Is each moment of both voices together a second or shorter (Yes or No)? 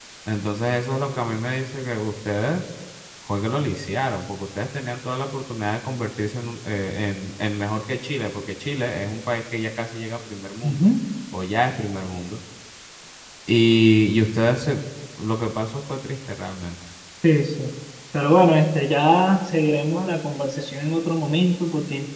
Yes